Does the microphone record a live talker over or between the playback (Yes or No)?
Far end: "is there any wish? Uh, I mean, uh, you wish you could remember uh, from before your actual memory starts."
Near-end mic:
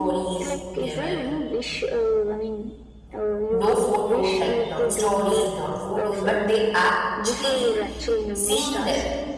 Yes